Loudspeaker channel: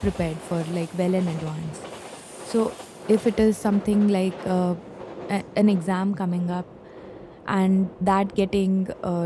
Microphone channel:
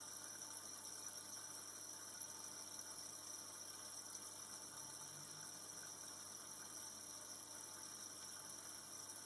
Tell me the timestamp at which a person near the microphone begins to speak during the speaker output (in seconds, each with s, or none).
none